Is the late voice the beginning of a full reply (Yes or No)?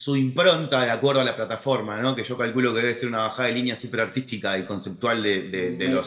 Yes